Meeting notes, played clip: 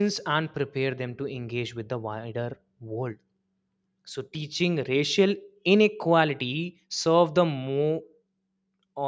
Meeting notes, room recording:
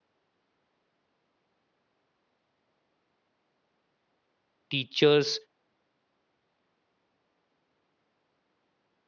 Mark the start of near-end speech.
4.7 s

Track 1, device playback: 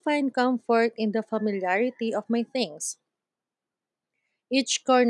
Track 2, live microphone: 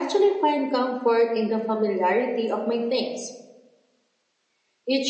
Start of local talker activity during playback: none

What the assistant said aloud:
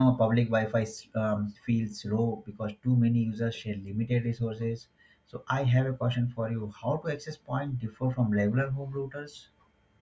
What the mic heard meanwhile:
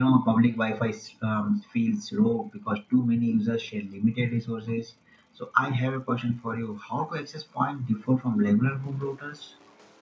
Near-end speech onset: none

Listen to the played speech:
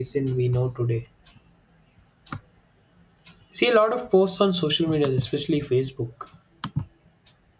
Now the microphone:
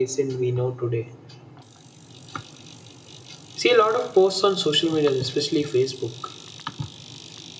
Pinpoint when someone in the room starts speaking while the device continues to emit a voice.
none

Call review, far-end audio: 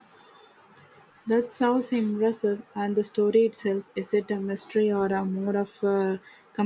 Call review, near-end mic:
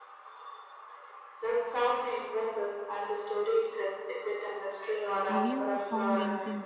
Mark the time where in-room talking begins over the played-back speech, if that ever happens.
5.3 s

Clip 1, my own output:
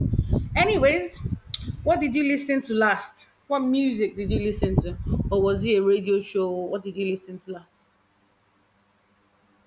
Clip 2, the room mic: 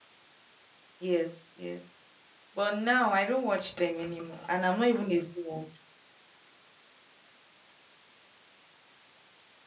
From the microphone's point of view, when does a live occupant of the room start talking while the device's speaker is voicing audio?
1.0 s

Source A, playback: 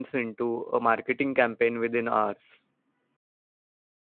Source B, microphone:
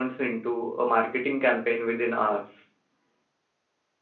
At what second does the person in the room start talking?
none

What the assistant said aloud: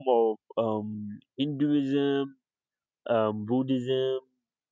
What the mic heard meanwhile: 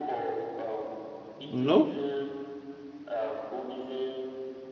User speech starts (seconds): 1.5 s

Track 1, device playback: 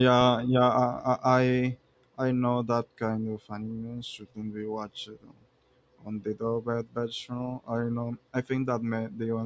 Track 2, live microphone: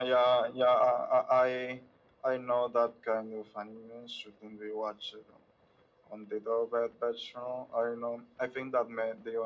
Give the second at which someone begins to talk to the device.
none

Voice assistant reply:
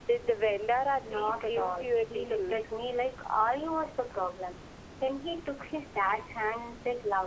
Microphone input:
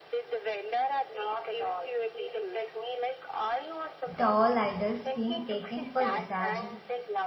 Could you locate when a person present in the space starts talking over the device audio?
4.2 s

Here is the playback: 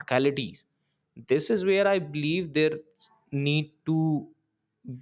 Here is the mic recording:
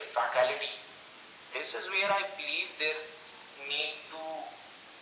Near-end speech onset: none

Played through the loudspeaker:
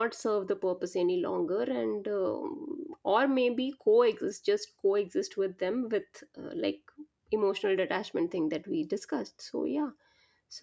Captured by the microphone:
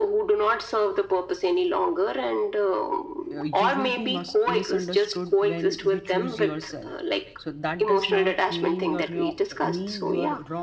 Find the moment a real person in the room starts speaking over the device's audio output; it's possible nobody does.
3.3 s

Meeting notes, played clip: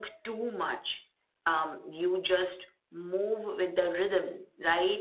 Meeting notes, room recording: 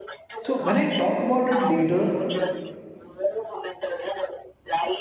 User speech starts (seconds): 0.4 s

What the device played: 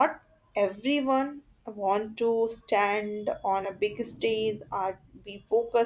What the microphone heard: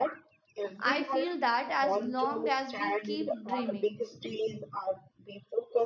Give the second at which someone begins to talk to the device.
0.8 s

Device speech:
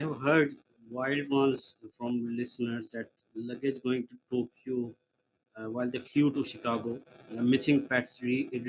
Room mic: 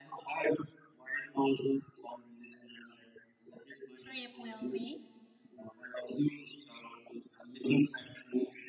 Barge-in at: 4.0 s

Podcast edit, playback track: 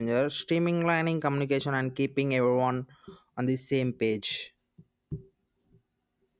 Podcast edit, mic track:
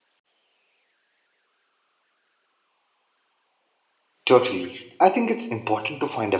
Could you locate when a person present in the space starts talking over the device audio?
4.3 s

